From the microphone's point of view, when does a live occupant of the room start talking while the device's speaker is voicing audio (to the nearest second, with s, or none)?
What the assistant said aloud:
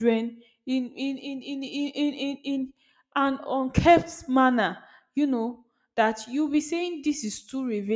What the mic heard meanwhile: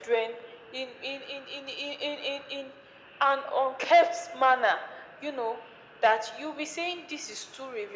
none